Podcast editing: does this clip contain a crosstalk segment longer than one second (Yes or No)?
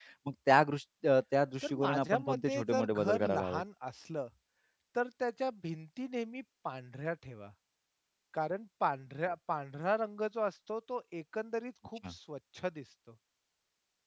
Yes